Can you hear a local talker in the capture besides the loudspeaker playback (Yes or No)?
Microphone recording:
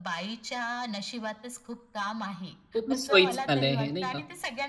Yes